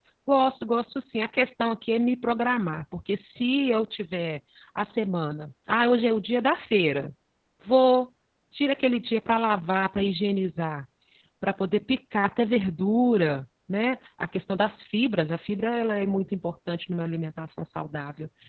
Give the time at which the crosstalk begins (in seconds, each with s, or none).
none